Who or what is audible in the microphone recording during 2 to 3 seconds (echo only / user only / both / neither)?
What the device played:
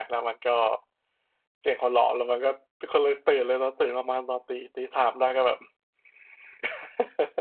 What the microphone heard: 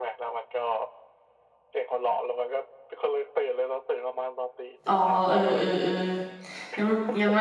echo only